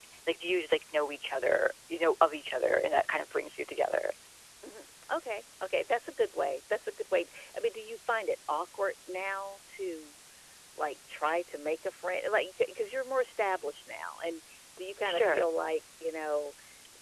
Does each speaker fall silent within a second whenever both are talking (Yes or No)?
Yes